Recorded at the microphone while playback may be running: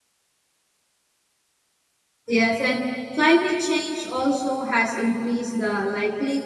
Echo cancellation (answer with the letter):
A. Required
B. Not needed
B